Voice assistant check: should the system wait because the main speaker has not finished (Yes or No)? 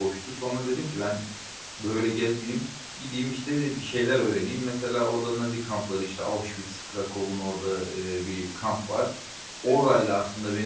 Yes